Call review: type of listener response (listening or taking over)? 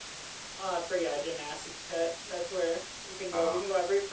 listening